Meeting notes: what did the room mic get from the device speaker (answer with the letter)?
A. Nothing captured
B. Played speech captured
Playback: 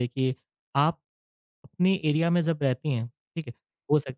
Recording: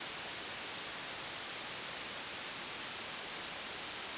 A